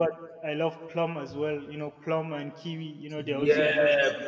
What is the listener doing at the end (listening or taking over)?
taking over